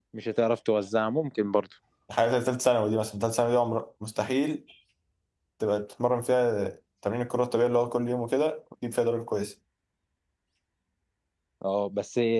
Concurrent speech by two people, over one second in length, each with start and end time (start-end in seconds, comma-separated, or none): none